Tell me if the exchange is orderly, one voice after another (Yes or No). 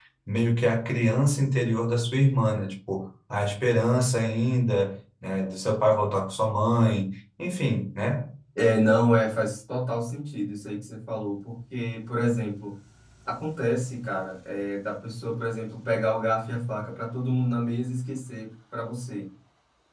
Yes